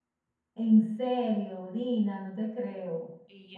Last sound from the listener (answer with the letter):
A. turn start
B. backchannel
A